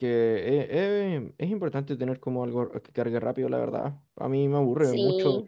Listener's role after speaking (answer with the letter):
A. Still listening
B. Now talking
A